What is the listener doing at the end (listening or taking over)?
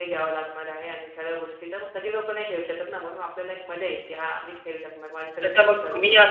taking over